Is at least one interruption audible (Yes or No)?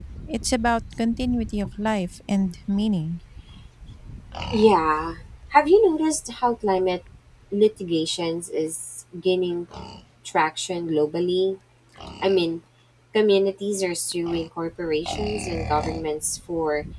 No